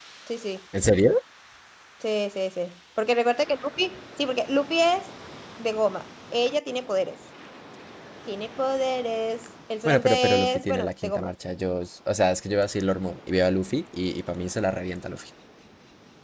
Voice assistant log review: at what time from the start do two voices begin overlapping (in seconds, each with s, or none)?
9.8 s